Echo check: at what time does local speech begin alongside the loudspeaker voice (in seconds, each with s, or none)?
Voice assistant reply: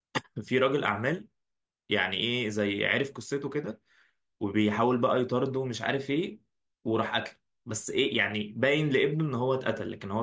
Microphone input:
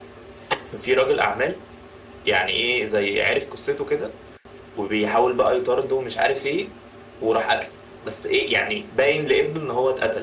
none